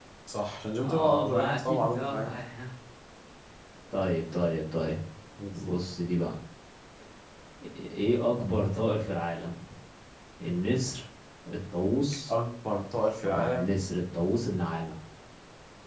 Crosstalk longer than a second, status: present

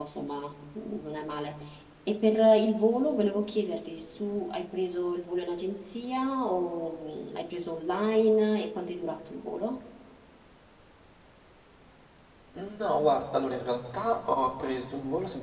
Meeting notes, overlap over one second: none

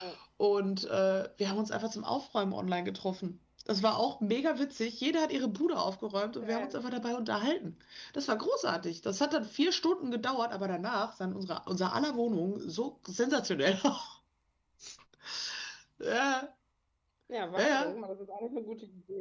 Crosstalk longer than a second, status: none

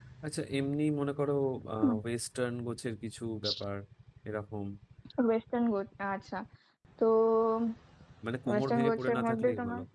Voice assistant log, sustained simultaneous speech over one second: present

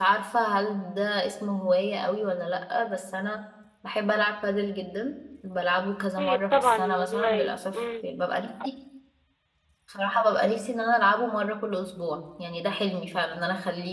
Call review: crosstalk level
present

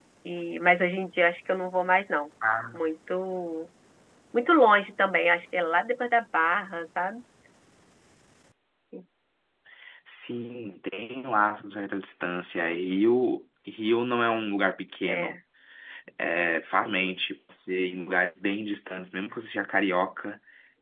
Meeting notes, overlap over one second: none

